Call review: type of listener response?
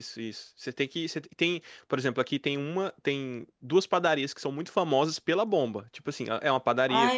listening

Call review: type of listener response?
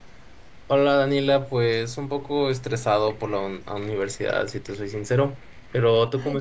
taking over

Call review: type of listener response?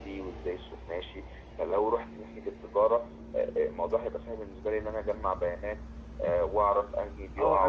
taking over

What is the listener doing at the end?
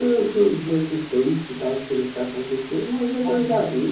taking over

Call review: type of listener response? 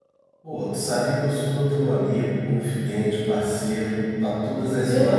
taking over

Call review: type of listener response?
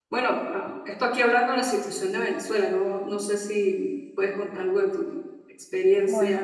taking over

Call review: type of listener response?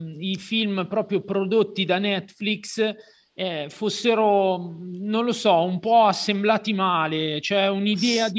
listening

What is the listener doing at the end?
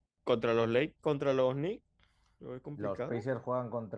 taking over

